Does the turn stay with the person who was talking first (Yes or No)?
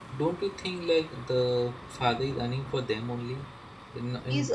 No